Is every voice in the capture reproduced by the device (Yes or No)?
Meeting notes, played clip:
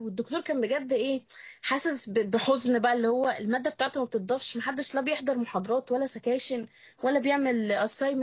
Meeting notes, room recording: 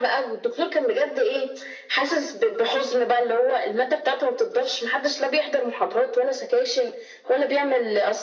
Yes